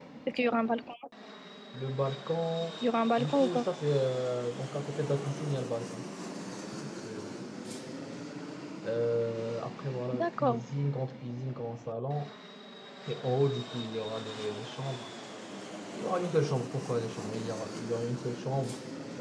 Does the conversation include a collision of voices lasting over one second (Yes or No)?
No